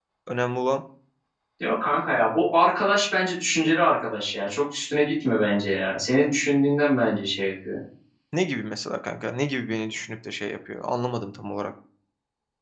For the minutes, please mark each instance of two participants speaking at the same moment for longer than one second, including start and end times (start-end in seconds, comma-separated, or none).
none